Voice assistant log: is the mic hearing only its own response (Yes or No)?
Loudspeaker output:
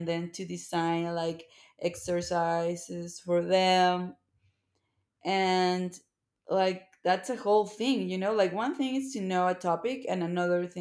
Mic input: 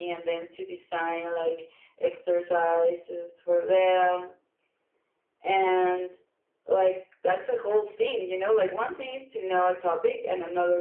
Yes